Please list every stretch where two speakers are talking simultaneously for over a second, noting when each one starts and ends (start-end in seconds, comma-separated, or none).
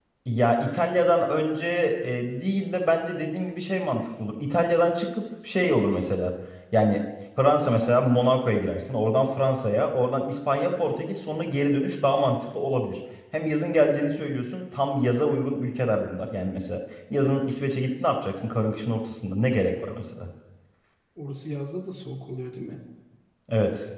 none